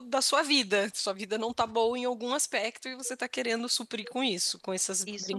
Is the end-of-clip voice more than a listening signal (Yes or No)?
Yes